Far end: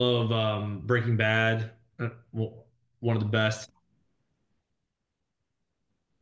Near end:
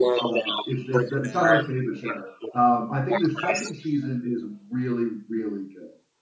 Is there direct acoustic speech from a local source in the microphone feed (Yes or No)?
Yes